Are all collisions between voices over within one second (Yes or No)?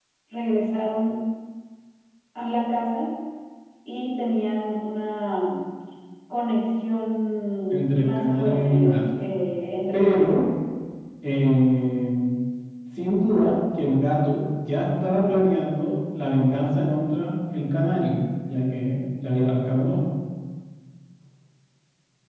No